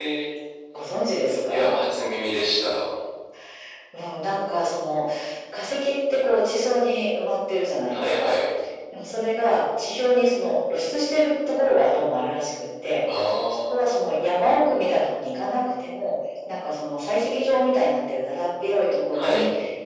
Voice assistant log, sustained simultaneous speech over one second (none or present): none